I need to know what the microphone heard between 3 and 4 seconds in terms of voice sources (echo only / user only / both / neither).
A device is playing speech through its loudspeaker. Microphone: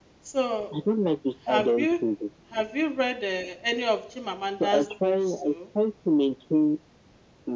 user only